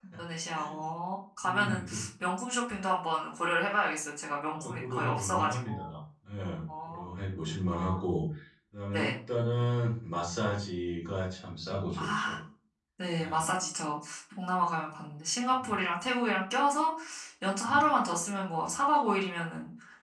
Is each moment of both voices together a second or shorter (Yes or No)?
No